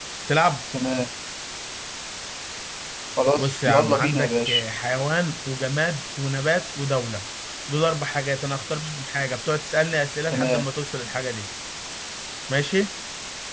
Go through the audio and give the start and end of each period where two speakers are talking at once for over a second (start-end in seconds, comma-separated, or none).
3.4-4.6